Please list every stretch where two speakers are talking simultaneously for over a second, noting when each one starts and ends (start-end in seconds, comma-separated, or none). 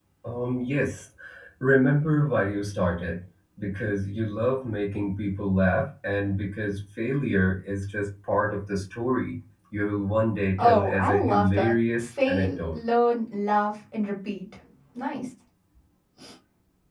10.6-12.8